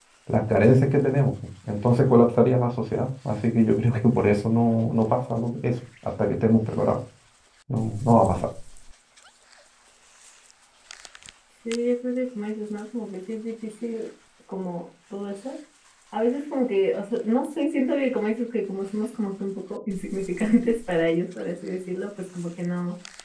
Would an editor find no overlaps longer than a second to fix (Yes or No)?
Yes